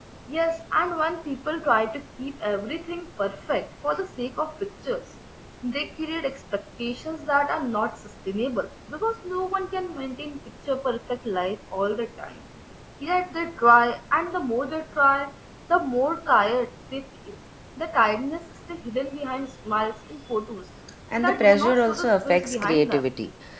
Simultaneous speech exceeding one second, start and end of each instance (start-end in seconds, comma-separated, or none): 21.2-23.1